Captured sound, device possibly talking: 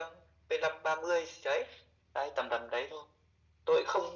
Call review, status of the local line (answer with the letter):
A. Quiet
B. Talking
A